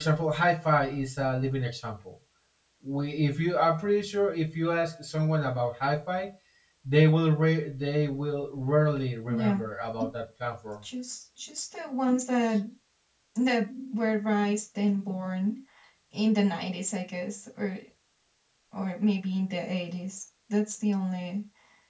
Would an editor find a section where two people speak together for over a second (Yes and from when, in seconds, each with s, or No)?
No